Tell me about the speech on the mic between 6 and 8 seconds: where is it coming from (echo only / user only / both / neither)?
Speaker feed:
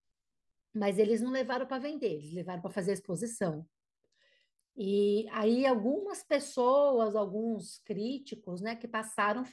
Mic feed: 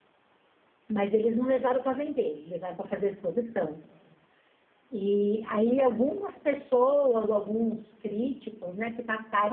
echo only